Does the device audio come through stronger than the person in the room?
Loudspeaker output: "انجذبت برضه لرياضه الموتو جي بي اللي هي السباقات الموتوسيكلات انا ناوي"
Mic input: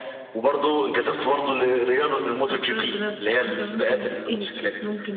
Yes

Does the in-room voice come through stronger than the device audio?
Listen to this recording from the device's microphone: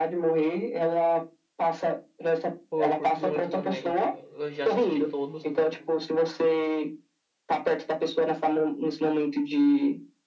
No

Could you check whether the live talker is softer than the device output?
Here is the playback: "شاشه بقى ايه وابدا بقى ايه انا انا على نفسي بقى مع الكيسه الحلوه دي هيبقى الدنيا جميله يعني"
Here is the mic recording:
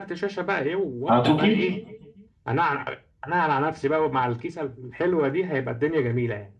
No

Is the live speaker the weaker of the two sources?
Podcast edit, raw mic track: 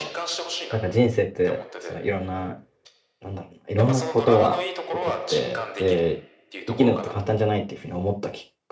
No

